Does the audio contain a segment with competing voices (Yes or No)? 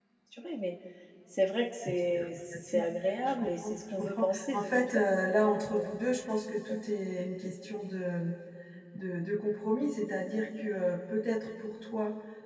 Yes